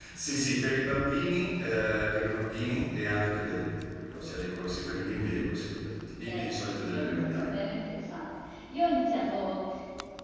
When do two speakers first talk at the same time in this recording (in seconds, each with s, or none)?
6.2 s